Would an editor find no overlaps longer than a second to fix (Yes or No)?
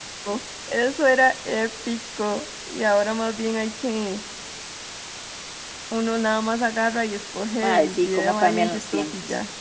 No